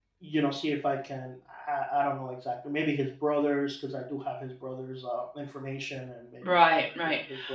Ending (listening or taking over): taking over